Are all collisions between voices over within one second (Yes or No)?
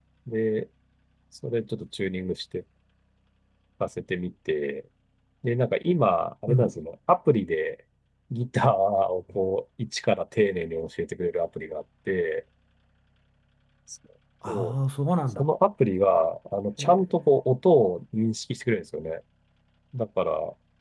Yes